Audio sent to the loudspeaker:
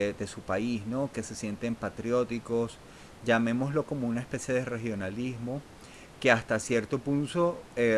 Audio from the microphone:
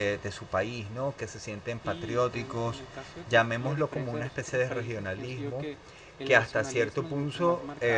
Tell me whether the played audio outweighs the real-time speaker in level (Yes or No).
Yes